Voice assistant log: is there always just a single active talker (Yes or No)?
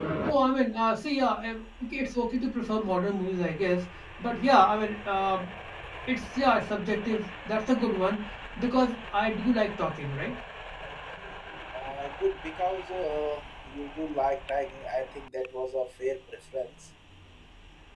Yes